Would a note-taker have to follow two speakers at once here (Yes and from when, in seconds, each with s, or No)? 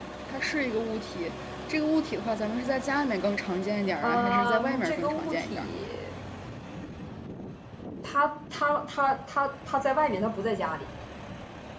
Yes, from 4.0 s